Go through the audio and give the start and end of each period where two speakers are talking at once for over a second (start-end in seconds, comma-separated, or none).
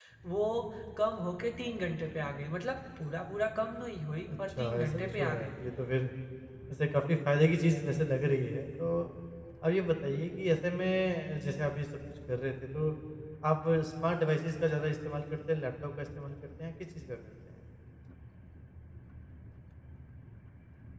4.3-5.5